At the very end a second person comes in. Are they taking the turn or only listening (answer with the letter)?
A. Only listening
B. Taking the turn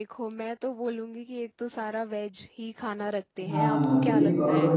B